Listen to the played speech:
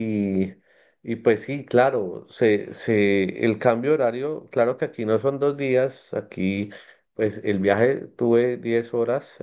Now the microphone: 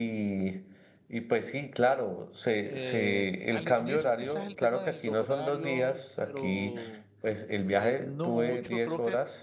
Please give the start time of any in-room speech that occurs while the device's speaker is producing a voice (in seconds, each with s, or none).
2.6 s